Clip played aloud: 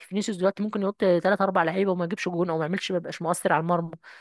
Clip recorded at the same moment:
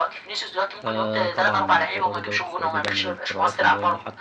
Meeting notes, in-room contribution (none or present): present